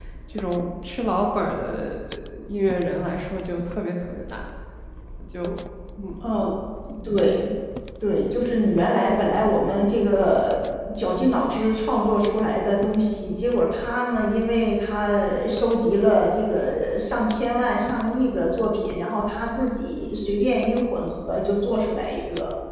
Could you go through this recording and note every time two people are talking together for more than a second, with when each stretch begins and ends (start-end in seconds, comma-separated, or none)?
none